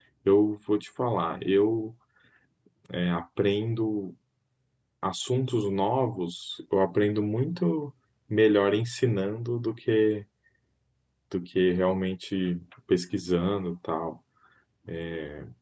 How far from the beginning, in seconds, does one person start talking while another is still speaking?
none

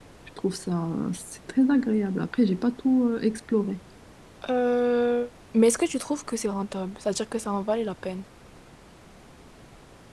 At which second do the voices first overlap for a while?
none

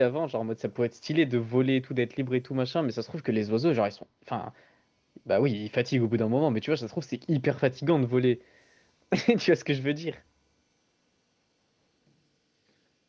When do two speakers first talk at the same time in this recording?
none

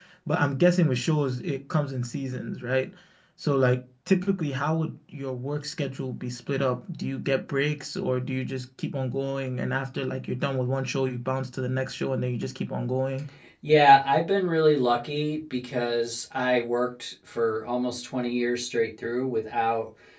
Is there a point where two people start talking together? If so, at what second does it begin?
none

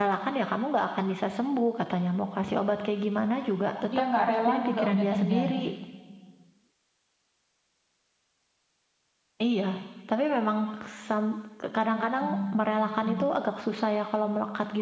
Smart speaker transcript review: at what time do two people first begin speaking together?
4.2 s

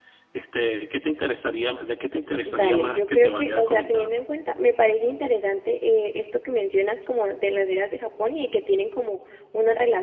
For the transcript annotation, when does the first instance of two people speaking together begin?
2.4 s

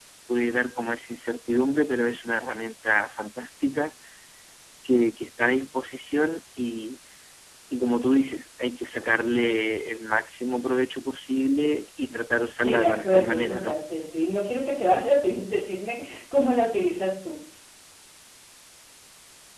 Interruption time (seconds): 12.6 s

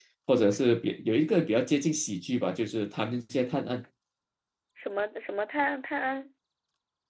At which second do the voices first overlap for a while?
none

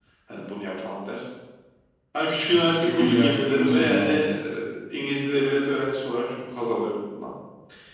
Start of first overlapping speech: 2.5 s

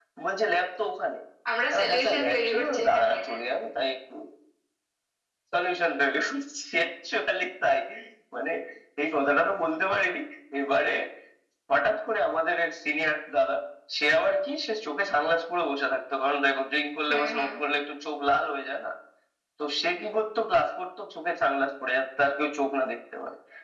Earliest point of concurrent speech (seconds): 1.7 s

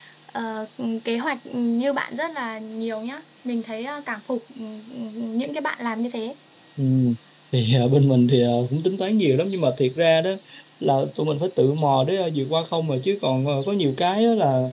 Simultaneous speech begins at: none

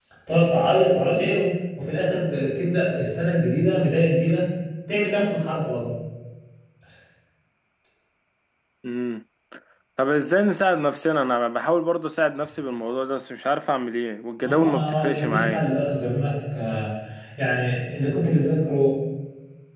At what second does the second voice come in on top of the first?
14.4 s

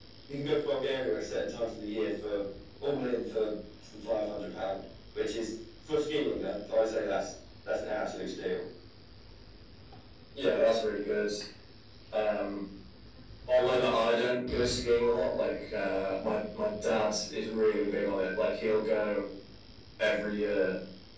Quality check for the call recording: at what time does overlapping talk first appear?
none

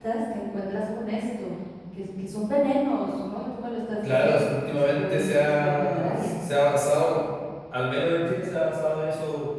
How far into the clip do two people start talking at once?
4.0 s

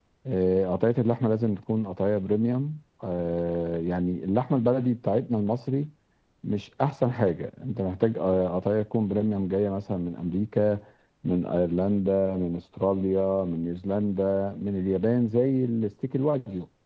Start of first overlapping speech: none

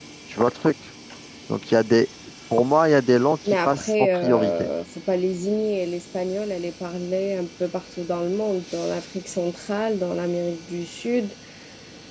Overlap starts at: 3.5 s

